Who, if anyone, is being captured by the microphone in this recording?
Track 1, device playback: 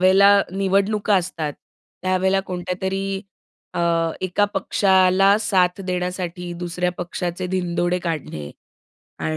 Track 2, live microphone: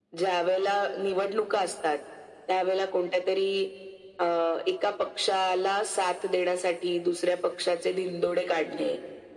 echo only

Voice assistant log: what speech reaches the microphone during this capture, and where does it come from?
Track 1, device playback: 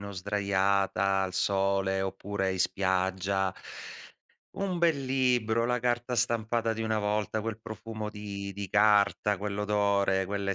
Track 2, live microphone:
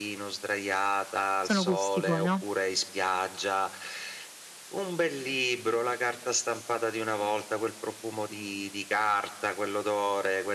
both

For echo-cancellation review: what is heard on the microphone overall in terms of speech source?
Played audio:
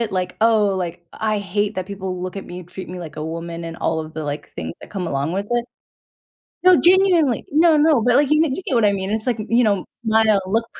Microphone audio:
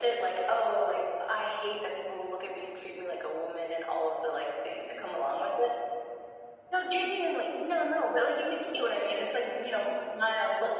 echo only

